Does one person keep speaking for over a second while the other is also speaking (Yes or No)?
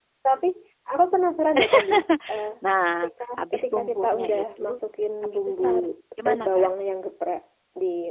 Yes